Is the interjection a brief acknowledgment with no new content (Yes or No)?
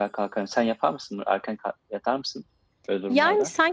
No